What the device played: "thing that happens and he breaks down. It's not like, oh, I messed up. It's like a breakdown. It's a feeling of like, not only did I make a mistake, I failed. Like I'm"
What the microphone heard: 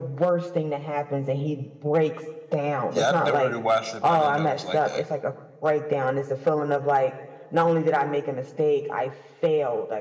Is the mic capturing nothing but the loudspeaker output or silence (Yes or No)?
No